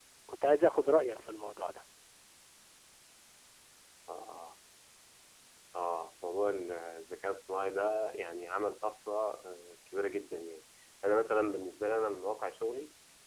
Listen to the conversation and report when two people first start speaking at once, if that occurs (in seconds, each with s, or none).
none